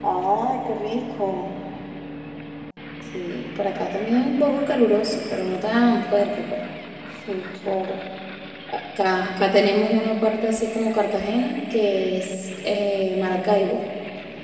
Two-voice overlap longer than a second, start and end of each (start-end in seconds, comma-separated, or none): none